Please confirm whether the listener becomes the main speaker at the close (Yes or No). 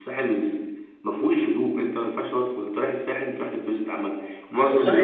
Yes